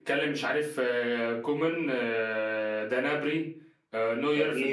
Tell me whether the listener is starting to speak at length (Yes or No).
No